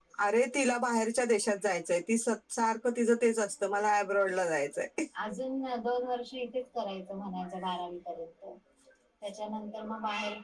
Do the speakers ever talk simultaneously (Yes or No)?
No